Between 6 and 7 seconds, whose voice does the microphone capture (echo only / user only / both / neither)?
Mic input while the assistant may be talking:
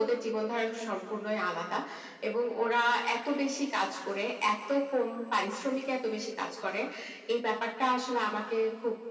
echo only